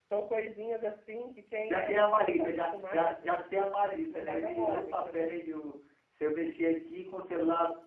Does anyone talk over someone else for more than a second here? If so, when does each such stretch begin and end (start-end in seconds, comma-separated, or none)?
1.7-3.4, 4.1-5.4